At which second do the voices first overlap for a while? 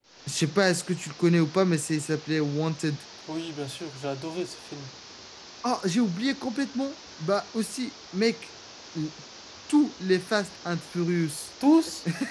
none

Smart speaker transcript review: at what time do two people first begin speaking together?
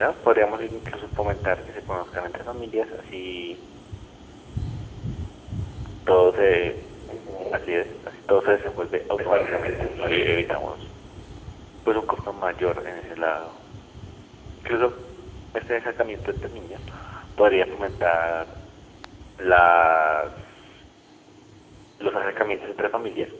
9.2 s

